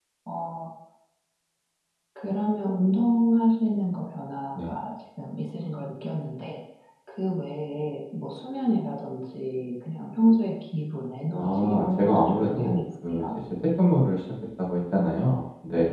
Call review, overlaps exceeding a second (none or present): present